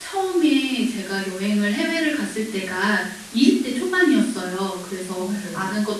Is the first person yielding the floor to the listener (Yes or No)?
No